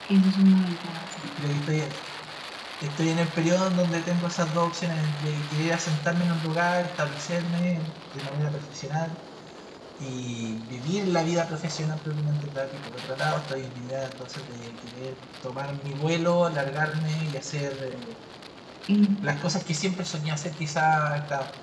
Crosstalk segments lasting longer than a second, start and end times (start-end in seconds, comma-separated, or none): none